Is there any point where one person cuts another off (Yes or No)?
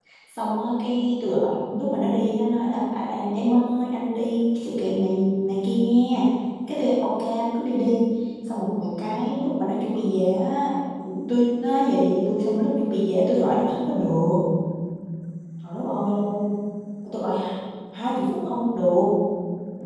No